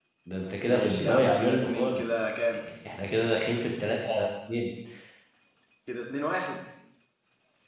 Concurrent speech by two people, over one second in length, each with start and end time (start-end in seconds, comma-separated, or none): 0.7-2.0